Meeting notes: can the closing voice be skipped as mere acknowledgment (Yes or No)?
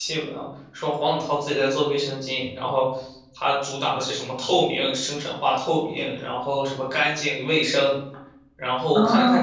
No